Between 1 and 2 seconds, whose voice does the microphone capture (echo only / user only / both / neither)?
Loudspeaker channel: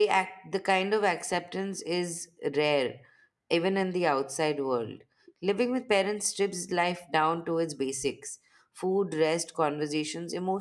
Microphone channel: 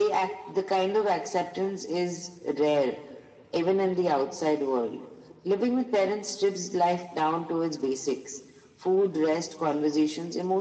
echo only